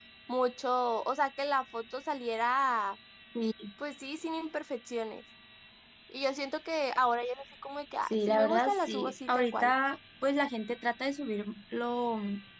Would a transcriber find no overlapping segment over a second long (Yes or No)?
No